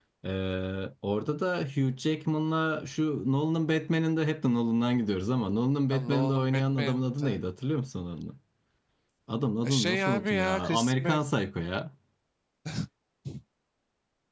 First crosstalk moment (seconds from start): 6 s

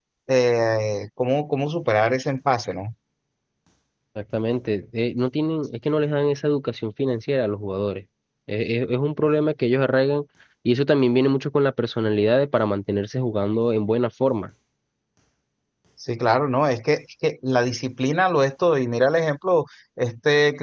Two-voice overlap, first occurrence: none

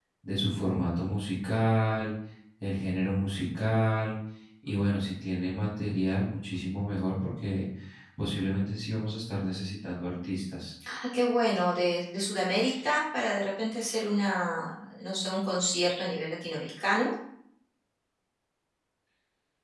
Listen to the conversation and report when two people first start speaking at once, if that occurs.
none

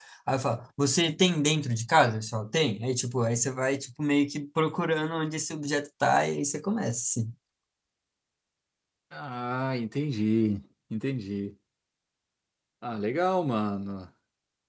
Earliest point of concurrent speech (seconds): none

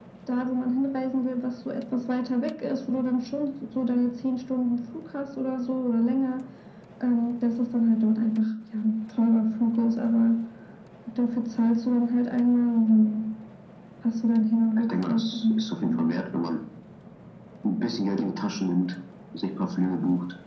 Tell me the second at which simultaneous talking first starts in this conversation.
15 s

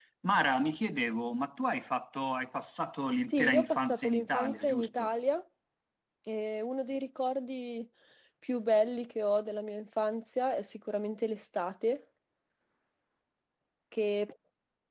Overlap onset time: 3 s

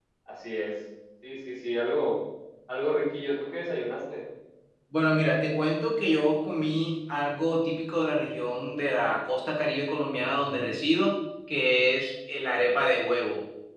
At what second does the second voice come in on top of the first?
none

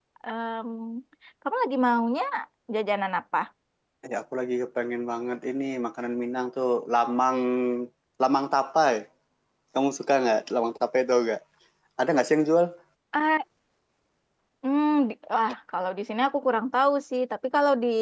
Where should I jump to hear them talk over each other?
none

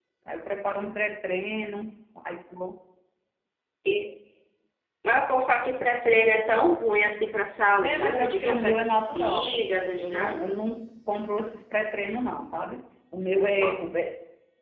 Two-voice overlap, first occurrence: 8 s

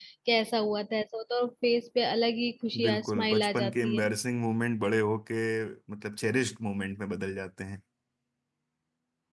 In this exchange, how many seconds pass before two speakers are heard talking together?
3 s

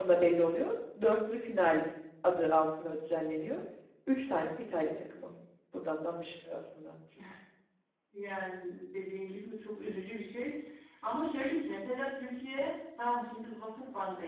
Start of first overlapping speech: none

